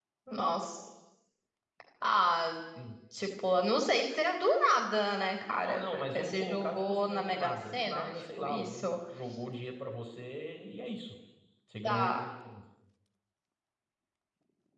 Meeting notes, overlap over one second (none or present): present